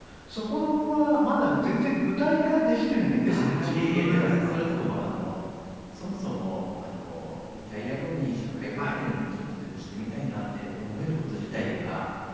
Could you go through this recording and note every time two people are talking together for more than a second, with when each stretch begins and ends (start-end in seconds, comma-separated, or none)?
3.2-4.5